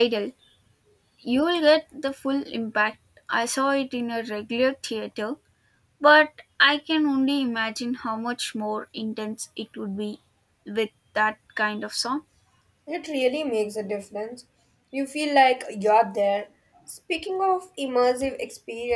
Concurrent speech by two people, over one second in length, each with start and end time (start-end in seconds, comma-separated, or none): none